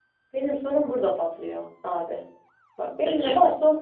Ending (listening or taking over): listening